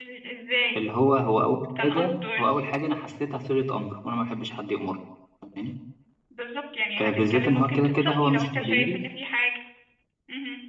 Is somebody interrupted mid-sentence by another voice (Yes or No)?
Yes